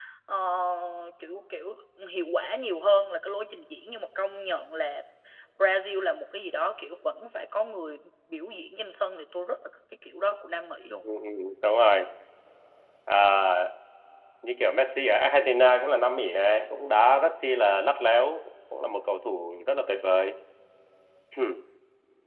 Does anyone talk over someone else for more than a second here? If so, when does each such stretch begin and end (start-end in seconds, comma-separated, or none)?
none